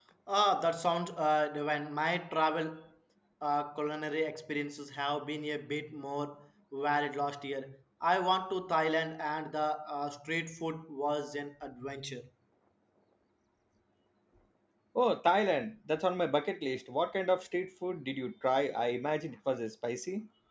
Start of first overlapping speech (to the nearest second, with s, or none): none